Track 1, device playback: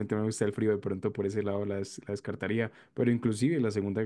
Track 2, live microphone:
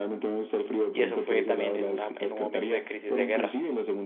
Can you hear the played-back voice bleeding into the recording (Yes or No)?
Yes